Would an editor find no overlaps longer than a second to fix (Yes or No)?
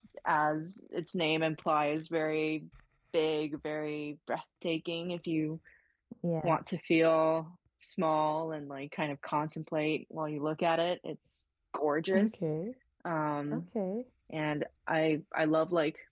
Yes